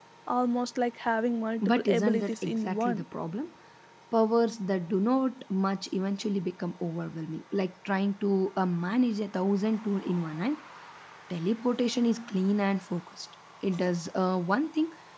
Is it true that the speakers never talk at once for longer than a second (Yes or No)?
No